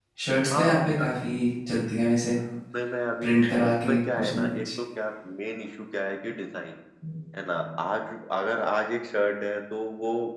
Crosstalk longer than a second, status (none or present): present